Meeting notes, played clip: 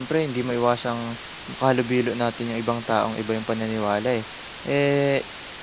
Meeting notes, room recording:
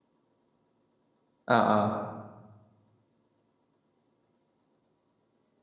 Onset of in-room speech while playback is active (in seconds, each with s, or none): 1.5 s